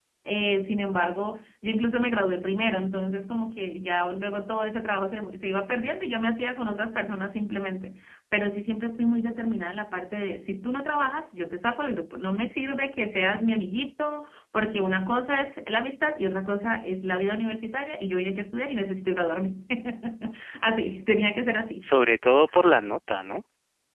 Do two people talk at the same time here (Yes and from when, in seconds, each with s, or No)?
No